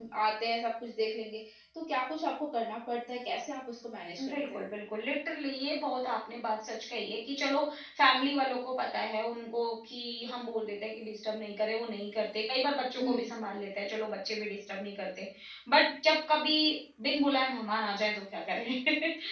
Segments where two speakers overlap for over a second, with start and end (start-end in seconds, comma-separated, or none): none